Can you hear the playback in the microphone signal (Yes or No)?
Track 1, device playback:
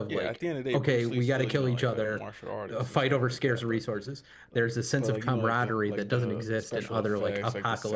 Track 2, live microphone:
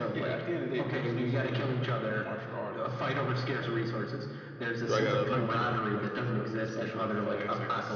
Yes